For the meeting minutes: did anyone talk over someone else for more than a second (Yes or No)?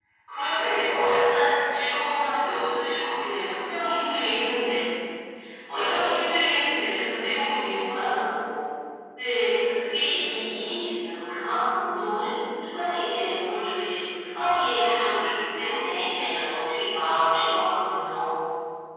Yes